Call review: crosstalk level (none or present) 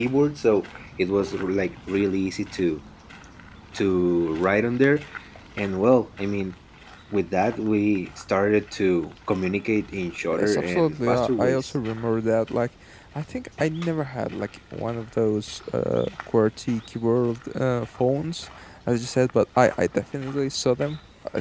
present